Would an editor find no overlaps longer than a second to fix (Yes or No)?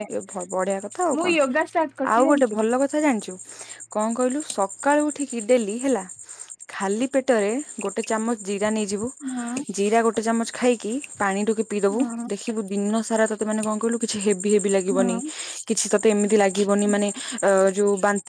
Yes